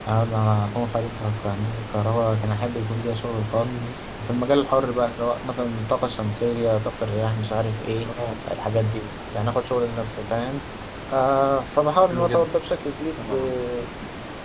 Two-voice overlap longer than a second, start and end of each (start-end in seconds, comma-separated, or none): none